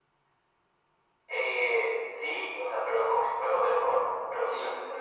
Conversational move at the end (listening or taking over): listening